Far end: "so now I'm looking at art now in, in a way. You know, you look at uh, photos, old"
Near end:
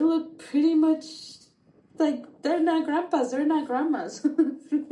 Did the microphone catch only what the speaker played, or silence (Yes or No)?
No